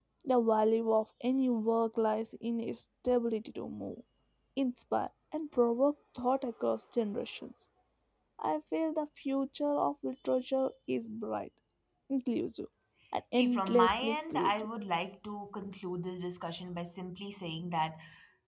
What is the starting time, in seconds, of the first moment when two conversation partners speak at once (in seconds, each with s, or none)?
13.3 s